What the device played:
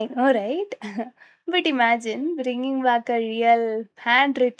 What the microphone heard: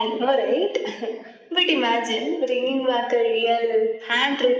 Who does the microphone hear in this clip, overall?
echo only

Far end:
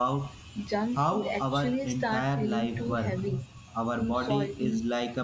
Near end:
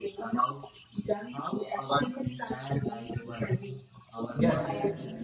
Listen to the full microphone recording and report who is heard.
both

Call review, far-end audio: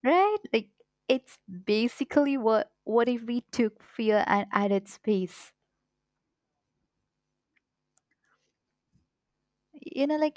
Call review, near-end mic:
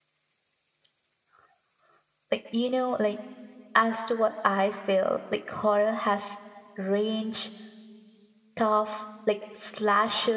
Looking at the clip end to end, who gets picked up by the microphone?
user only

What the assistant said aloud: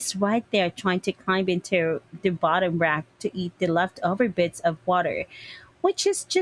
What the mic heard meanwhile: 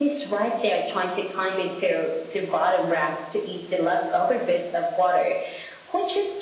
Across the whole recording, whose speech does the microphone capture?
echo only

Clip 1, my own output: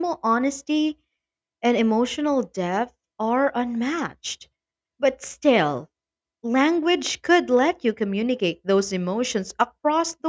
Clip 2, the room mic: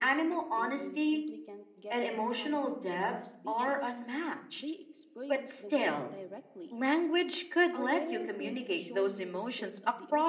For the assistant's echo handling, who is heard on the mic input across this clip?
both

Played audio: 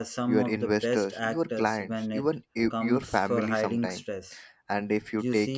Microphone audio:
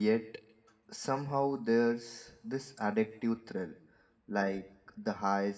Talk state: user only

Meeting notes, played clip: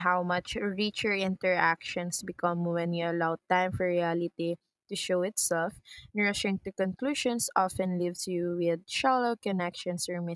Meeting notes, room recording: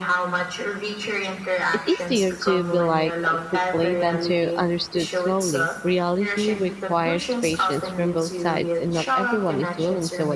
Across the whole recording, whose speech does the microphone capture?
both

